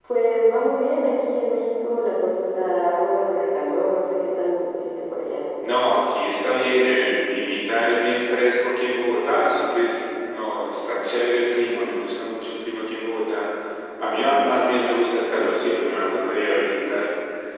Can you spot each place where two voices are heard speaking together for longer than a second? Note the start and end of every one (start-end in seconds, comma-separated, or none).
none